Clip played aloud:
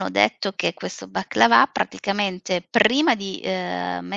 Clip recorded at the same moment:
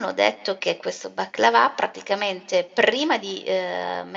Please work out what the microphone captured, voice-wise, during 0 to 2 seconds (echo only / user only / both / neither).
echo only